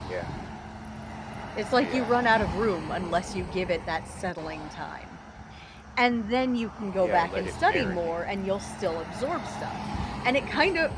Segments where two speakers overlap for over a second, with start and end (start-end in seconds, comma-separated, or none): 7.0-8.2